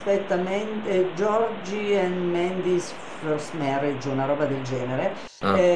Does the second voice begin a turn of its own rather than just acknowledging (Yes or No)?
No